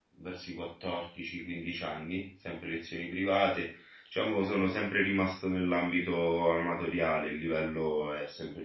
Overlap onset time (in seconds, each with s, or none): none